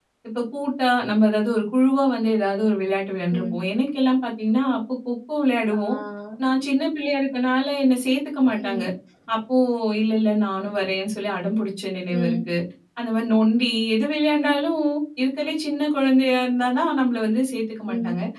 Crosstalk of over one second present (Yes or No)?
No